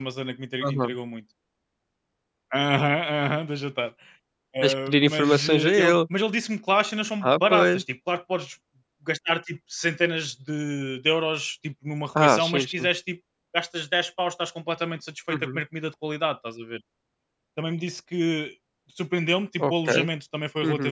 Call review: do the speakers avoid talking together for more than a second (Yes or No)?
No